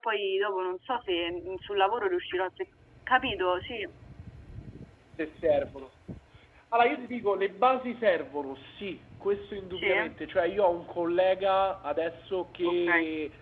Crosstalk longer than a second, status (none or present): none